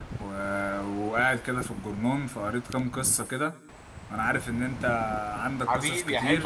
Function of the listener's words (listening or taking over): taking over